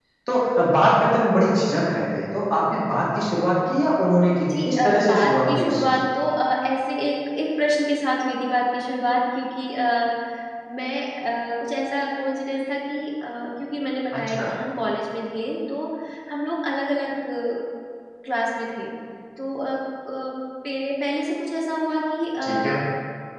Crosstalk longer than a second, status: present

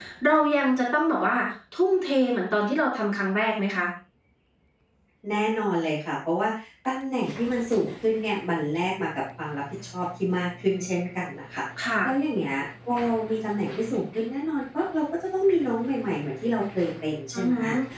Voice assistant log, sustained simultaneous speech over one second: none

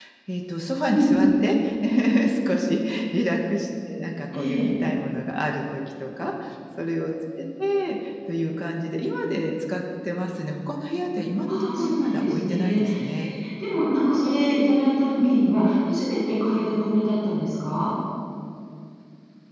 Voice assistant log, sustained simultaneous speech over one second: present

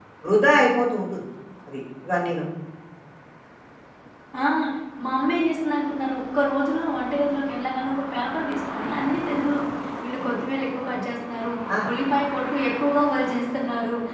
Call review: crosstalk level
none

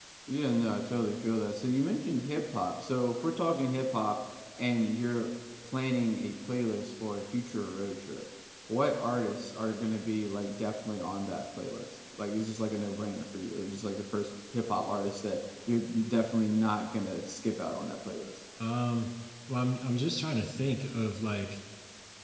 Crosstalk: none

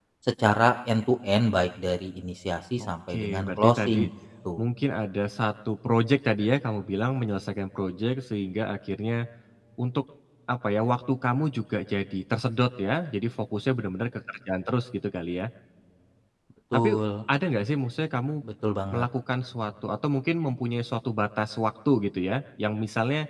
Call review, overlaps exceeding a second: present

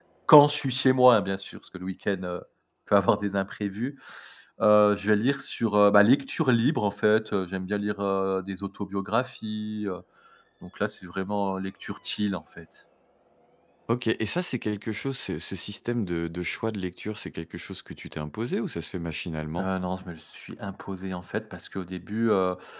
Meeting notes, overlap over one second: none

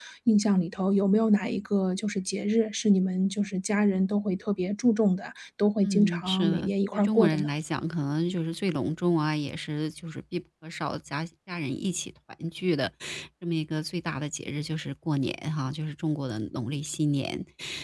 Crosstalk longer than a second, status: present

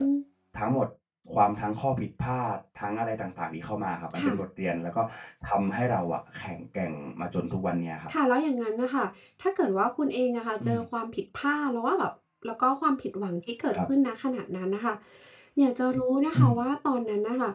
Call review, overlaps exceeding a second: none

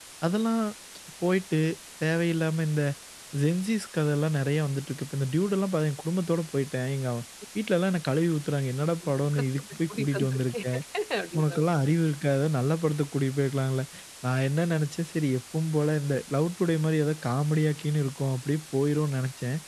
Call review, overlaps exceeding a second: present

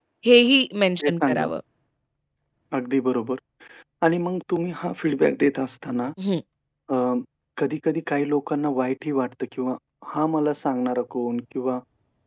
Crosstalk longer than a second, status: none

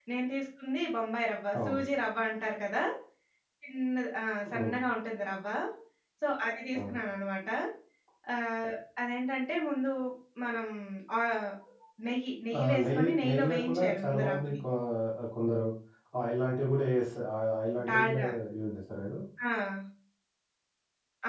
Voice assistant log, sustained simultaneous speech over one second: present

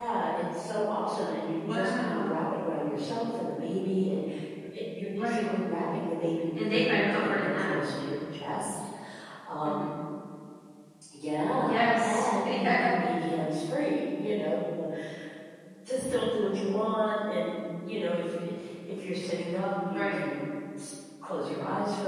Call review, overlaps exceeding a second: present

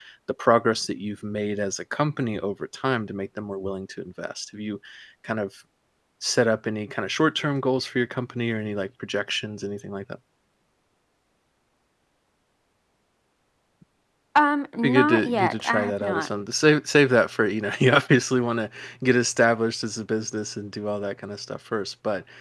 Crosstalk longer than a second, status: present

